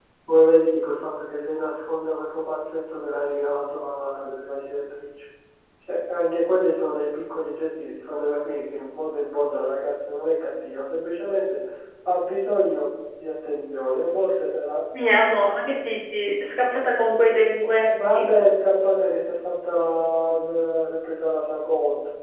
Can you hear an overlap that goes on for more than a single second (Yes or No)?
No